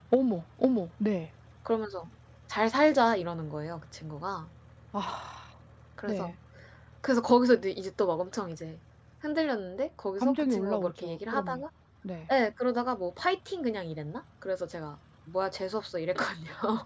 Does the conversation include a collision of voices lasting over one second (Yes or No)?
Yes